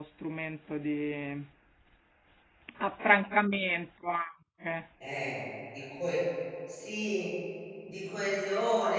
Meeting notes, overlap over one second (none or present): none